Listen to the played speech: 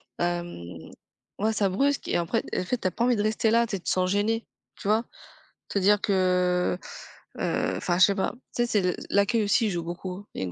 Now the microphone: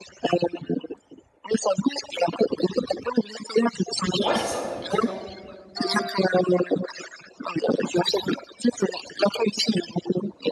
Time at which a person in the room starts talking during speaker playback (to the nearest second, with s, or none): 4 s